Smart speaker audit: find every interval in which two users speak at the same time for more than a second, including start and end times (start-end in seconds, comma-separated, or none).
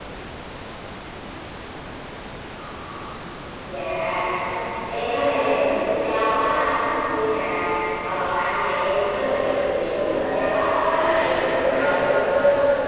9.8-12.2